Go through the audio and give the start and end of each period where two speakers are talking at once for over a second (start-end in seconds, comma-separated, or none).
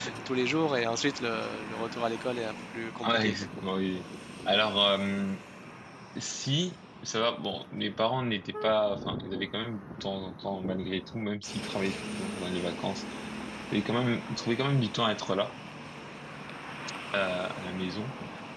none